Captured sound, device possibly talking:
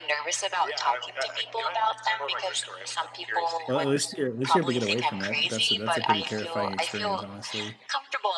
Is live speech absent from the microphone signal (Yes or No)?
No